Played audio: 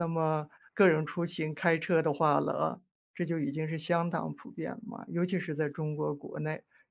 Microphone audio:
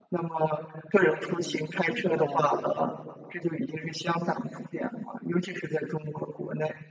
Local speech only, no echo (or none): 嗯，这种